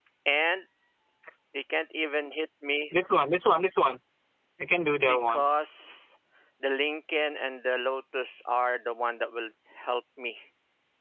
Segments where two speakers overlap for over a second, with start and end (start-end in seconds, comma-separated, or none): none